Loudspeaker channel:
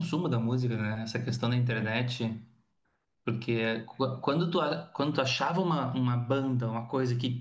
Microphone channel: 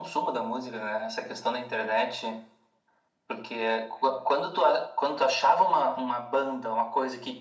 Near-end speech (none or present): none